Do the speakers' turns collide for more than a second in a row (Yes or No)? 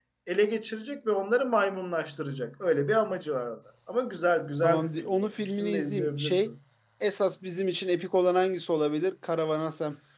Yes